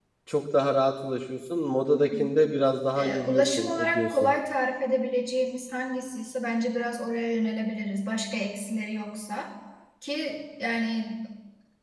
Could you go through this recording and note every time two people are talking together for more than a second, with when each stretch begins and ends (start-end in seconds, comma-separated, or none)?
3.0-4.3